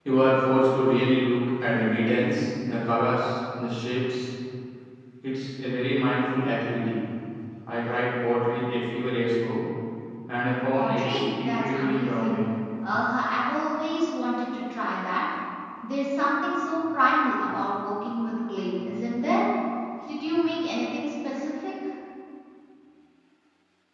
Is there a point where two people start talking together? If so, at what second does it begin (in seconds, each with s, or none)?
10.7 s